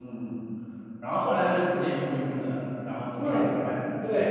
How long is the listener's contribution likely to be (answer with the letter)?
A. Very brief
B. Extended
B